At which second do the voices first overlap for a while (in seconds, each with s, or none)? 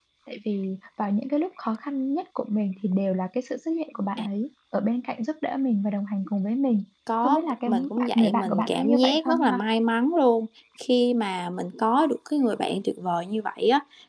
7.2 s